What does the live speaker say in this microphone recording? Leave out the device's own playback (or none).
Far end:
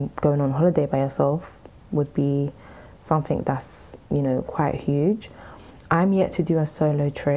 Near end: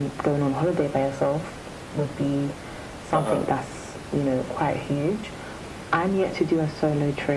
Uh-huh.